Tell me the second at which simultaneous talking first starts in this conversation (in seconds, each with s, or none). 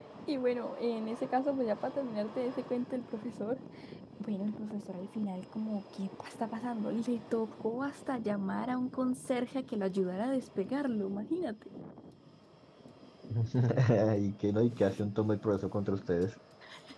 none